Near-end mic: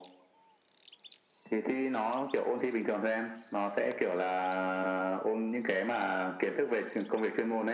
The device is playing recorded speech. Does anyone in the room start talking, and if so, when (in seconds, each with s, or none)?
none